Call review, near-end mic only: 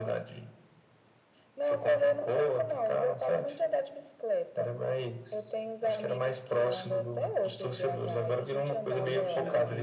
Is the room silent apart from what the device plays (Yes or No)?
No